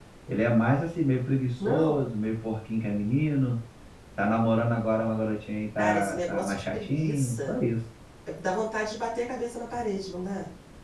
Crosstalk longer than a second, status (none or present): present